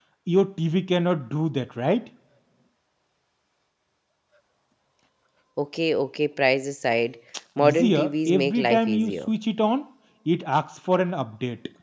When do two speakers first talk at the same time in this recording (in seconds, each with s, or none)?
7.6 s